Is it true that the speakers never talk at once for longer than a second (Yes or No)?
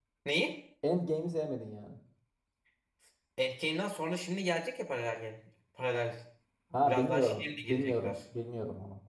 No